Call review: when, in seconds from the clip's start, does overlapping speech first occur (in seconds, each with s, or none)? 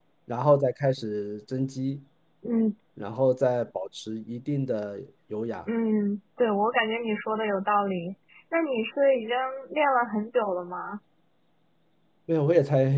none